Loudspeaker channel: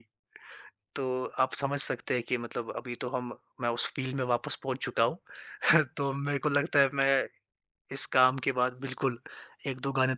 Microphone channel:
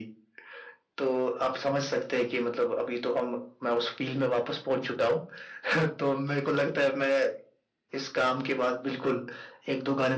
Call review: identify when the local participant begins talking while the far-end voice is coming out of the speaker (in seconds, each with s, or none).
none